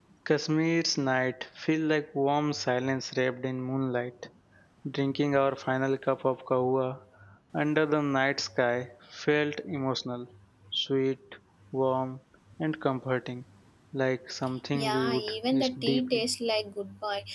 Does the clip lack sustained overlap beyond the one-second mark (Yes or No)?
No